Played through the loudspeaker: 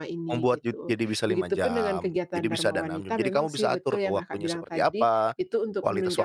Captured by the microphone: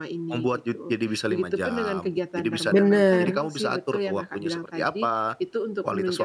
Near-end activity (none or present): present